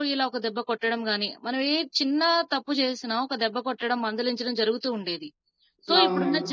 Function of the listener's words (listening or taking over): listening